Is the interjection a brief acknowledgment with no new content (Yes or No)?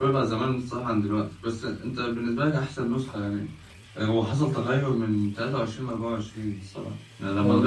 No